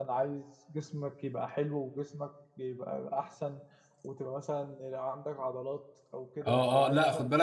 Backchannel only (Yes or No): No